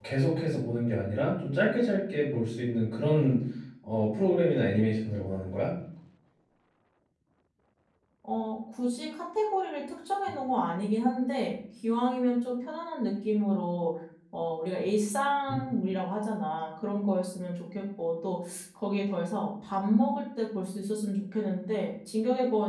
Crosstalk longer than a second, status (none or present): none